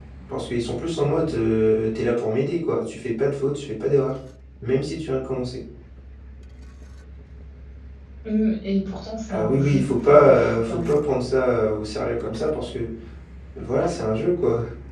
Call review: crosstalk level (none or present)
present